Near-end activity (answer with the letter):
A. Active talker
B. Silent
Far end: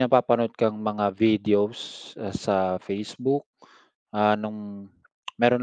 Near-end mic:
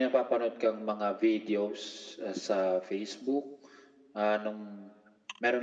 B